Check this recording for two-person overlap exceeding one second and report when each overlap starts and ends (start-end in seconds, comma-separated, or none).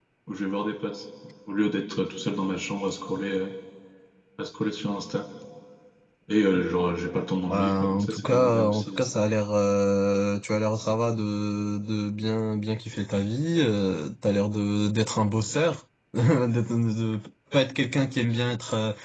7.5-9.0